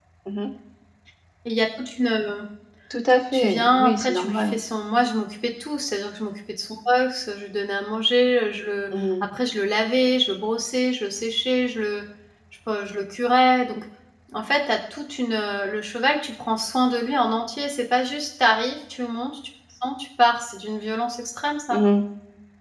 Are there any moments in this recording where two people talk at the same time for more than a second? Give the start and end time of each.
3.3-4.5

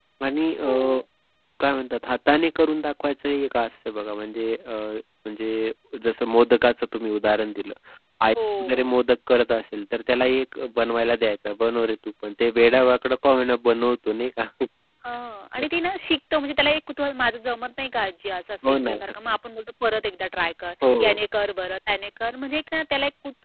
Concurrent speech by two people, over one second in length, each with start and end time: none

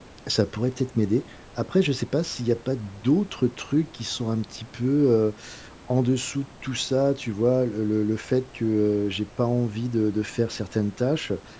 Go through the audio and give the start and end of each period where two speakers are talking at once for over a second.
none

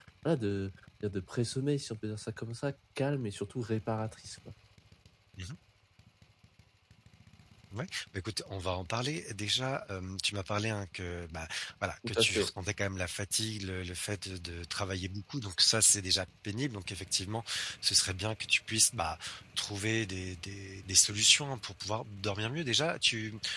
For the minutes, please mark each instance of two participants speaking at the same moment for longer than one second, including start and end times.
none

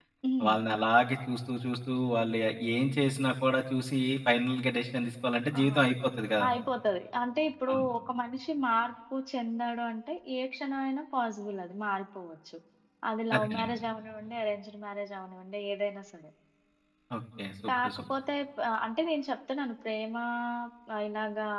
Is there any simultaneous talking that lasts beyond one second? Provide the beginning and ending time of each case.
none

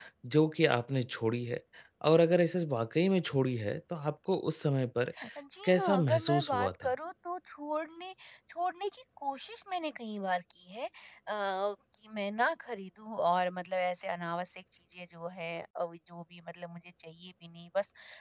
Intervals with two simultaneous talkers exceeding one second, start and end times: 5.6-6.9

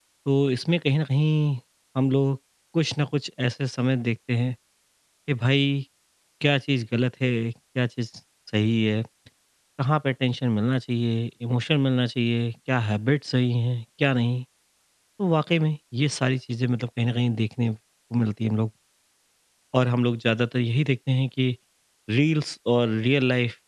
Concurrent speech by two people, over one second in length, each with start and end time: none

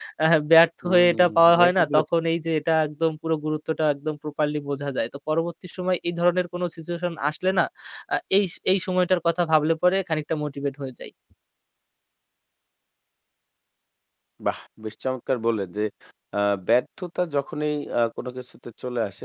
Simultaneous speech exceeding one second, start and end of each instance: 0.8-2.0

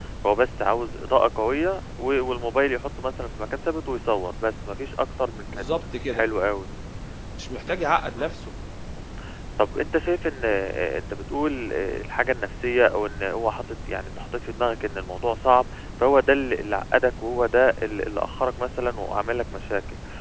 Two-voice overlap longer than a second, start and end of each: none

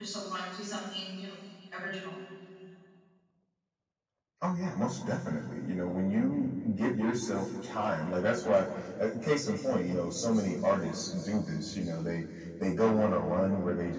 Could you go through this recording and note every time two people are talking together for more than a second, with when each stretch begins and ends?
none

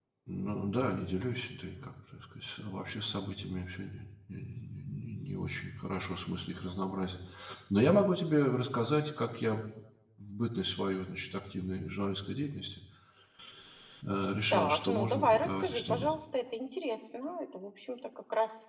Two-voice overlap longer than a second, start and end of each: 14.5-16.1

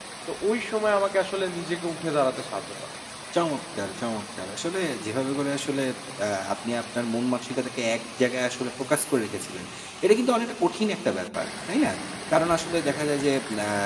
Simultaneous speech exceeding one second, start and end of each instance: none

